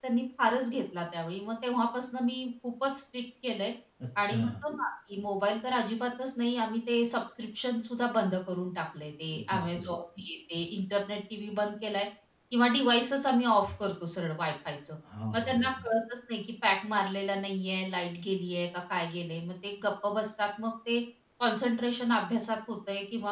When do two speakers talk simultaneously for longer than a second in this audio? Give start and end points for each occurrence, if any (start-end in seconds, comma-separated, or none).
none